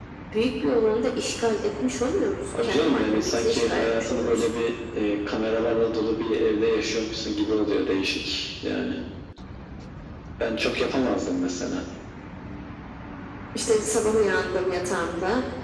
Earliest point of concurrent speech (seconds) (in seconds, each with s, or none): 2.5 s